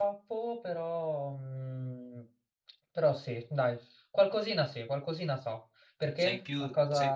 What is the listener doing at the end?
taking over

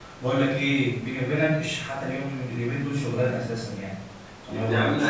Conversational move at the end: taking over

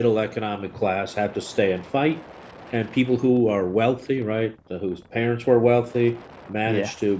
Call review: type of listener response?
listening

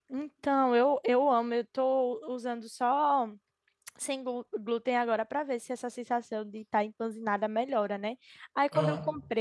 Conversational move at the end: listening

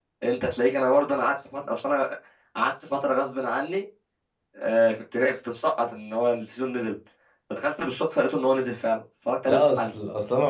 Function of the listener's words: taking over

